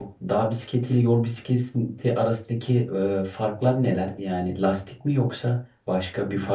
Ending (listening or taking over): taking over